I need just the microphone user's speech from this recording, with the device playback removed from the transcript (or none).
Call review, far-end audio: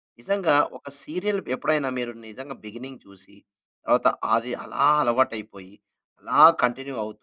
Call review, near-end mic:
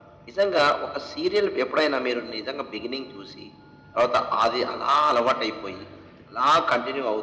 none